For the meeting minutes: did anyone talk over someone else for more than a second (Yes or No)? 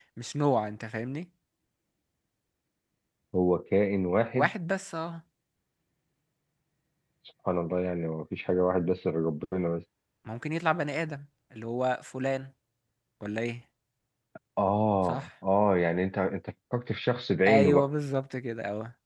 No